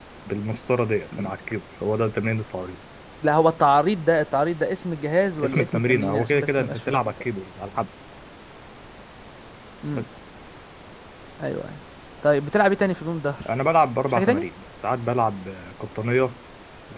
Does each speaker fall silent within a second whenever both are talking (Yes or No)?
No